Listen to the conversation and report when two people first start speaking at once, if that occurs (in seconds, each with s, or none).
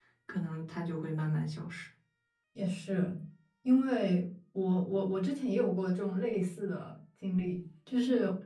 none